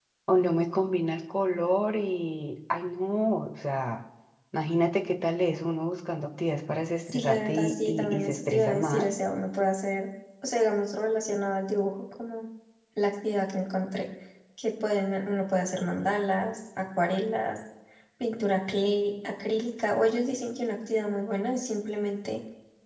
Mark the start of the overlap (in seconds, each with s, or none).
7.1 s